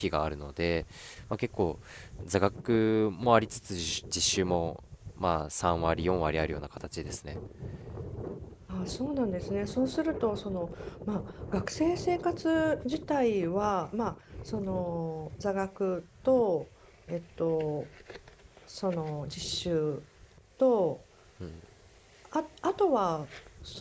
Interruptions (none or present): none